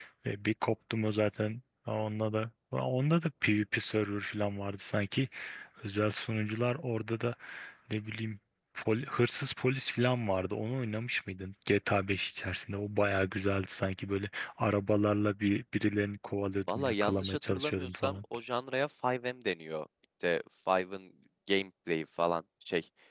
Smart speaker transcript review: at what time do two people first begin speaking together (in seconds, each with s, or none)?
16.7 s